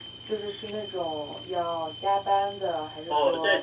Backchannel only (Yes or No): No